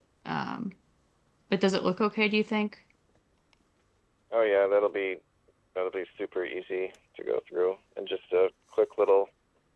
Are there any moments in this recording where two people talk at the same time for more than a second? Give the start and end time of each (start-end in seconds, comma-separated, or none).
none